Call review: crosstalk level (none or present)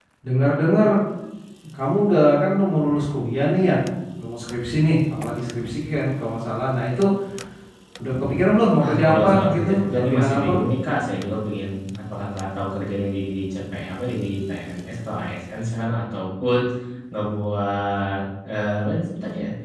present